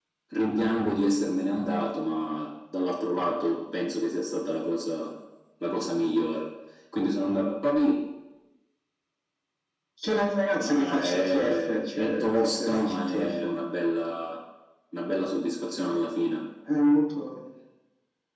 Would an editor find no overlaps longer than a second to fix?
No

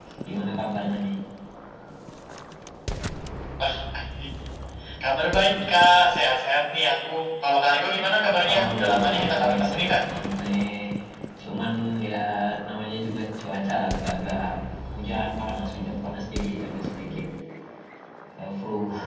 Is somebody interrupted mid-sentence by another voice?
Yes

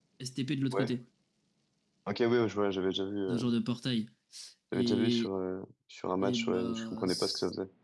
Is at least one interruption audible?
Yes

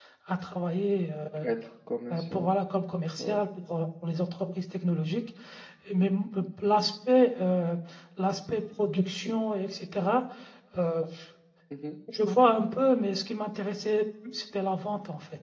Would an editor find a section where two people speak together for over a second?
No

